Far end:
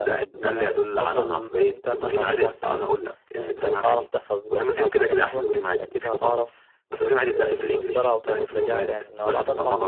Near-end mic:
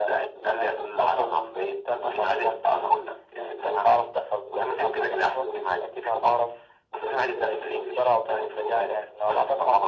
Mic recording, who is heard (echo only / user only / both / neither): echo only